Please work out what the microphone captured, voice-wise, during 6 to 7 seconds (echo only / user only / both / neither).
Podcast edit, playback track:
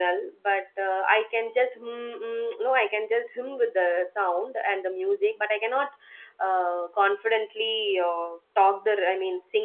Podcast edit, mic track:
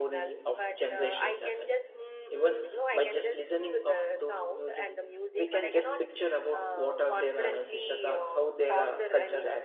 both